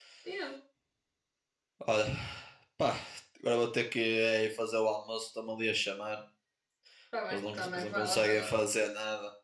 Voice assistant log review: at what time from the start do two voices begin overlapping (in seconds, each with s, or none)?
7.3 s